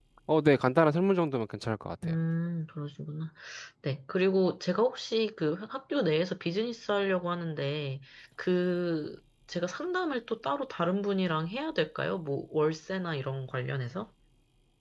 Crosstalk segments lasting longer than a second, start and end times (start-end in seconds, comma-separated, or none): none